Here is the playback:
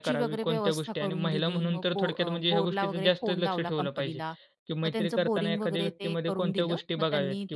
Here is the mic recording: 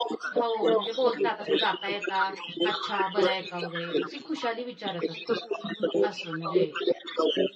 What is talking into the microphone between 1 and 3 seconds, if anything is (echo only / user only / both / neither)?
both